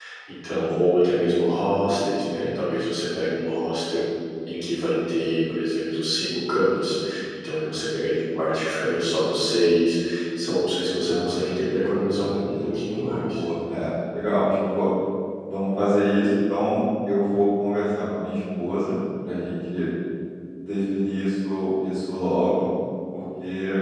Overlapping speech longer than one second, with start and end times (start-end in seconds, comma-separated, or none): 11.1-13.4